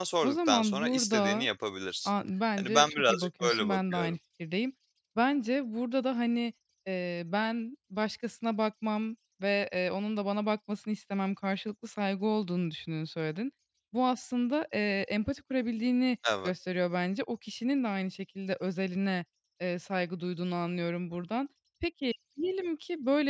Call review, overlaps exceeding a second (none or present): present